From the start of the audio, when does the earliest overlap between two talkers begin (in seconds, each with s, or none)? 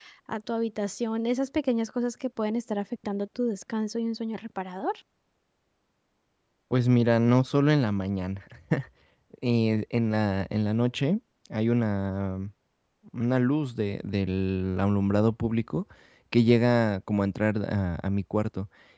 none